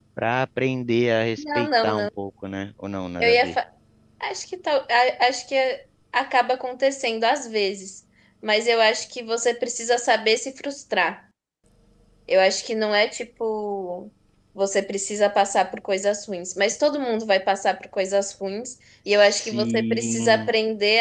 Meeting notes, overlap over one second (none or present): present